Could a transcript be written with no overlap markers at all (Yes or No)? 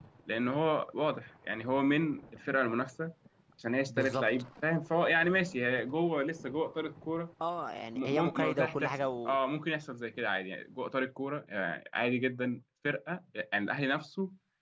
No